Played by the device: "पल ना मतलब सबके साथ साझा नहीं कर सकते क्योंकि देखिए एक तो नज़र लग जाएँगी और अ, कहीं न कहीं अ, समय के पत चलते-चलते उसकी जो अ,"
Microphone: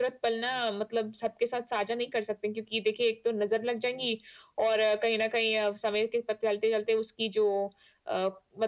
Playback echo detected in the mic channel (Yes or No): Yes